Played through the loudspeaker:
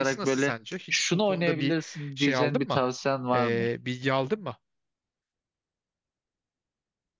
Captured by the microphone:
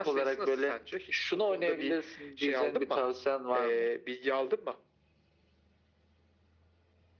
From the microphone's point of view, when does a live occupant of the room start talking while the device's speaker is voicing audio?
none

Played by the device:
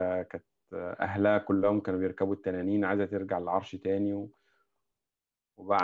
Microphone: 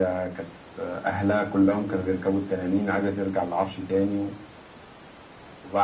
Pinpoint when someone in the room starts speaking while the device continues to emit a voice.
none

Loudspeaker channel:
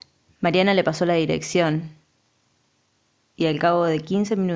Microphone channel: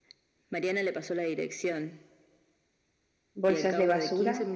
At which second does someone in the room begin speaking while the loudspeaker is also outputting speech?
3.3 s

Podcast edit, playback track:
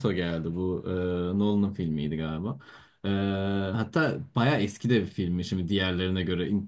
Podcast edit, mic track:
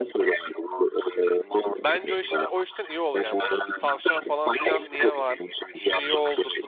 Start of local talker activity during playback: 1.8 s

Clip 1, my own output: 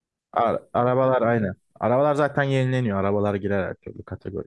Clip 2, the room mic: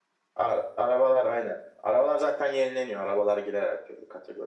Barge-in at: none

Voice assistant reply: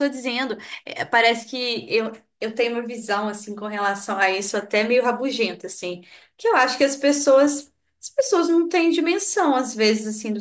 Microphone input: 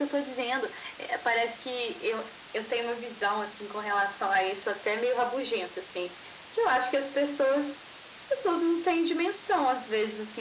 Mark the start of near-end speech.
none

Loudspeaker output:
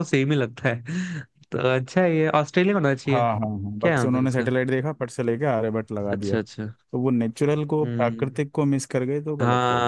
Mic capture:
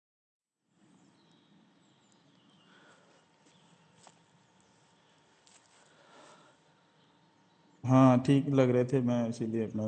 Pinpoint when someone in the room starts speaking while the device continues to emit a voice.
7.8 s

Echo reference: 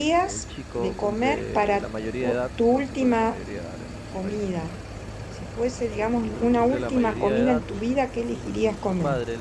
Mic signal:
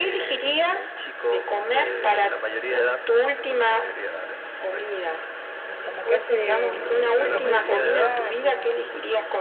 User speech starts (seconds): 5.6 s

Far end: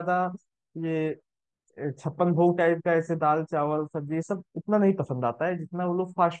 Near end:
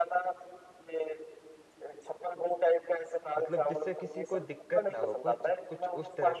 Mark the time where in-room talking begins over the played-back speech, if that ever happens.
3.4 s

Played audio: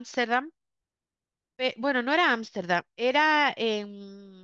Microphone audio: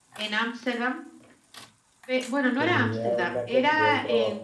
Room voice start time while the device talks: 2.5 s

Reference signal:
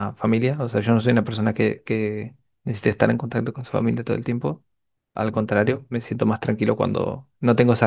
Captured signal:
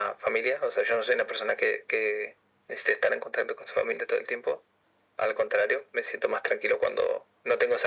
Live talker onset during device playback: none

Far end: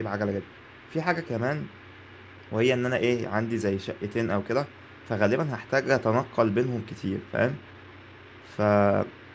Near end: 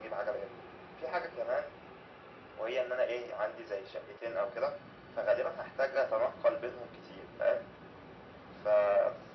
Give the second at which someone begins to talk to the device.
none

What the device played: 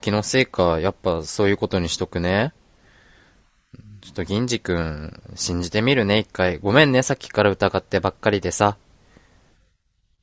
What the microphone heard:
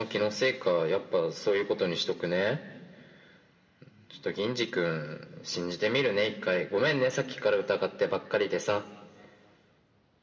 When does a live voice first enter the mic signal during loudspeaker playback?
none

